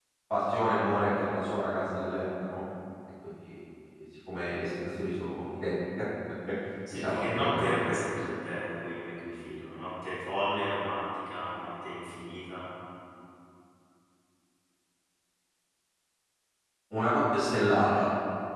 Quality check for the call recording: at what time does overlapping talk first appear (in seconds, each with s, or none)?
6.9 s